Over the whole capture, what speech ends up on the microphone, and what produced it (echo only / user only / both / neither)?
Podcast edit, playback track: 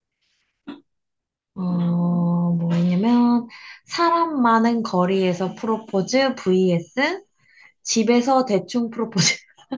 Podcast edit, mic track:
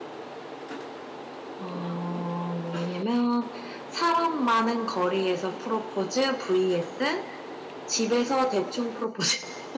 echo only